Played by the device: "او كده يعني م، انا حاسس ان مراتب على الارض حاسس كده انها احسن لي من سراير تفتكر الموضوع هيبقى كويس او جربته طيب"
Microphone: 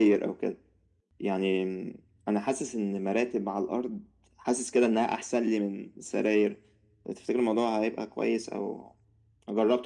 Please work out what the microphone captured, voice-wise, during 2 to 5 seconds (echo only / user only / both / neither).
echo only